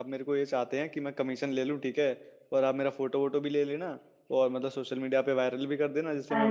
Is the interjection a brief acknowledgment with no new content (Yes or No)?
No